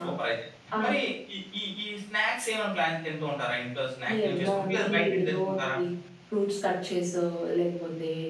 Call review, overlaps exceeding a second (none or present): present